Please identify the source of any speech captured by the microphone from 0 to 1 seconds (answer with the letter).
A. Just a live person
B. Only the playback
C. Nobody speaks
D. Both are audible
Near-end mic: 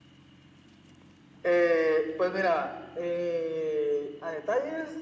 C